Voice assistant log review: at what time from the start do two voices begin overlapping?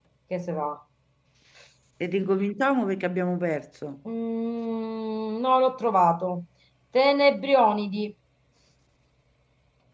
none

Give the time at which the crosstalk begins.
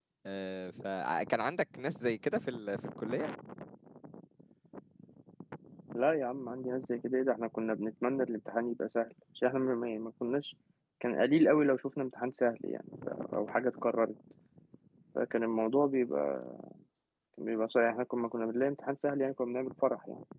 none

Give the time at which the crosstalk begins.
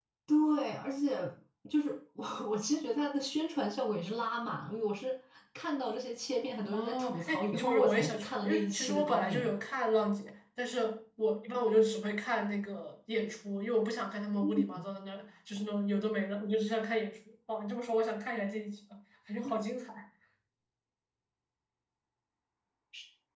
7 s

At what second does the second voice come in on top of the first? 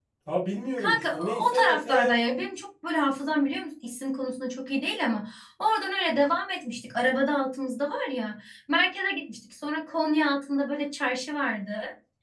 1 s

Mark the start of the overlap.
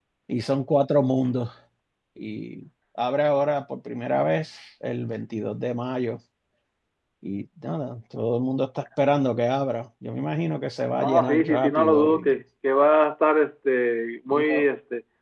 11 s

